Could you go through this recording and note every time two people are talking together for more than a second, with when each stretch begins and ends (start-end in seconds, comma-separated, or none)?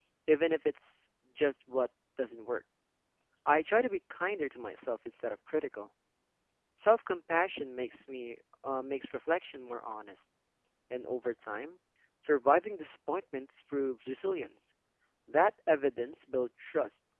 none